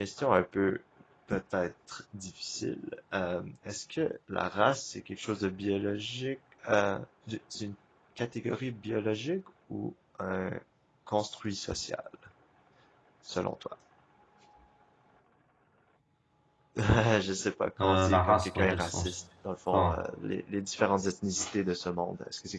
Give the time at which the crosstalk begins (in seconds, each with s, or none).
17.8 s